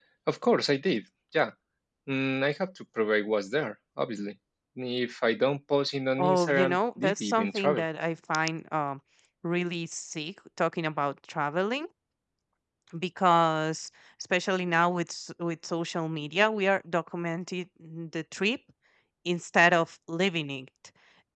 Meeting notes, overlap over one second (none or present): present